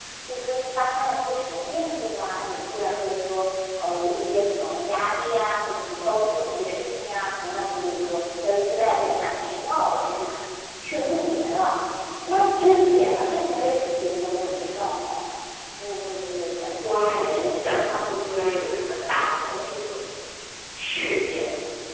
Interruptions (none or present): present